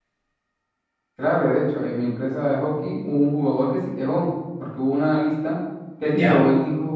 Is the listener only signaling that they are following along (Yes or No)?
Yes